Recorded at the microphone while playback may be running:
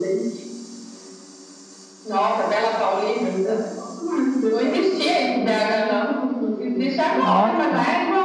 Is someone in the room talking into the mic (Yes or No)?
Yes